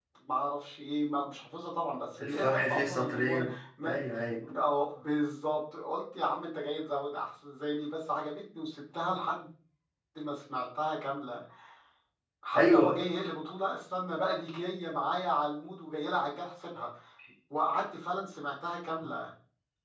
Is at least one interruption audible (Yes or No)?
Yes